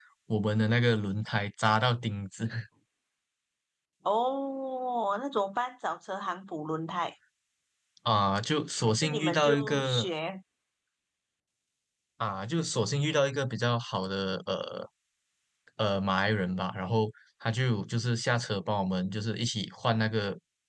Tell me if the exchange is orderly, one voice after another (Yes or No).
No